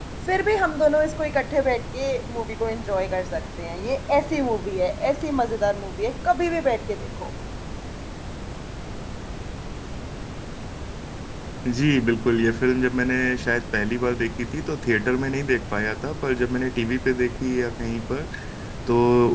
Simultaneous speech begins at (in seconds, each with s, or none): none